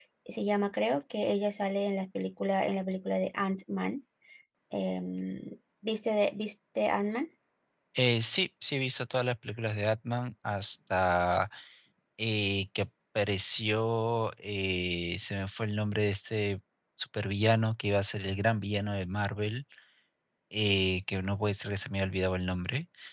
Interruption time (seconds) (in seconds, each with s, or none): none